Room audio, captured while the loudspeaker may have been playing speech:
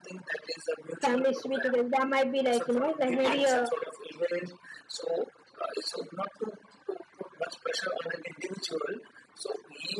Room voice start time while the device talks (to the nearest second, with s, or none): 1 s